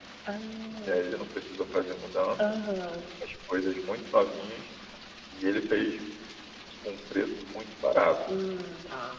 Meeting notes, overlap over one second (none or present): none